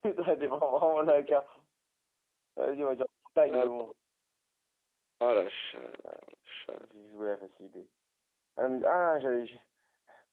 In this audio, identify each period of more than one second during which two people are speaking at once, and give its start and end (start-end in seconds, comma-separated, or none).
none